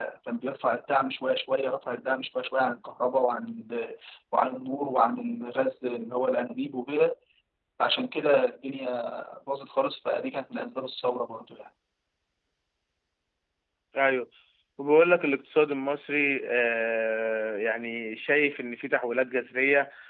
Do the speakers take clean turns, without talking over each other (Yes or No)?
Yes